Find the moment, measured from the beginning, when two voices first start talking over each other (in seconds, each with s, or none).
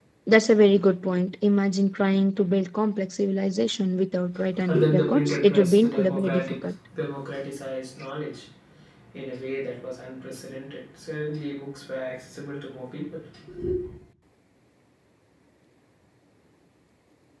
4.7 s